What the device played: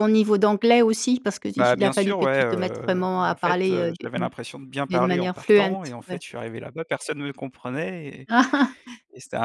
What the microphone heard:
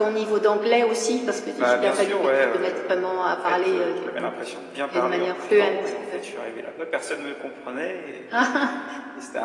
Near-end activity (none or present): none